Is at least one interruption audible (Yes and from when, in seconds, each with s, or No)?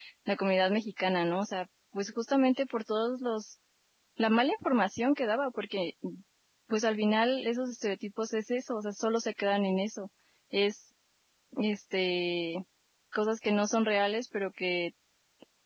No